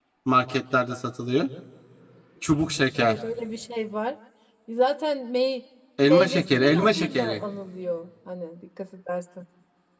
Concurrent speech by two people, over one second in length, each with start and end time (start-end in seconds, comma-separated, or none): 6.0-7.4